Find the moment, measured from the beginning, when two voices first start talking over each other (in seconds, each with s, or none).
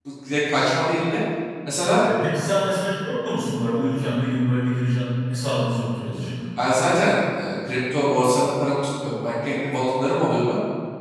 none